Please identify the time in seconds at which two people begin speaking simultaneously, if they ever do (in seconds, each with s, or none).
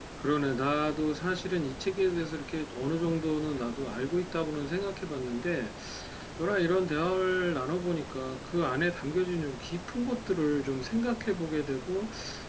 none